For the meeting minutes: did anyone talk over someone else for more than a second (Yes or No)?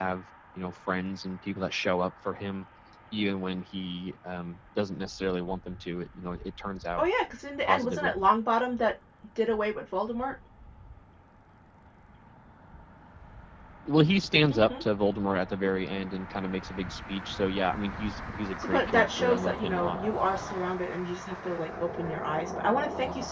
Yes